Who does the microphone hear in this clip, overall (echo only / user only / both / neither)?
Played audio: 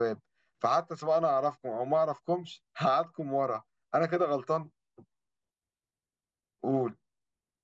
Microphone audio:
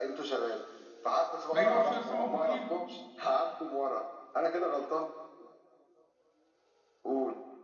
both